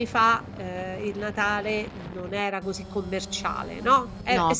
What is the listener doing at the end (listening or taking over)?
listening